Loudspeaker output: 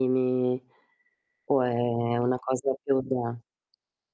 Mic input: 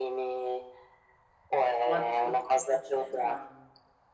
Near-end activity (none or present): present